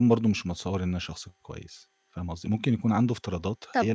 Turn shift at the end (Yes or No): No